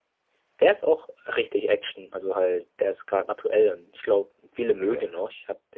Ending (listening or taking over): listening